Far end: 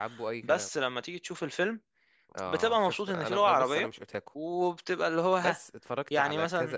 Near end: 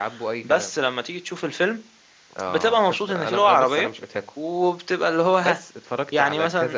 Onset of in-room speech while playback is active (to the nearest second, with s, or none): none